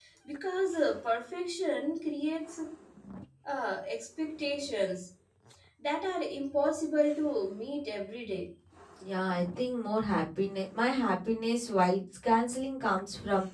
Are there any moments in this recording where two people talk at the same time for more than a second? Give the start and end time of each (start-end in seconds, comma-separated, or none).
none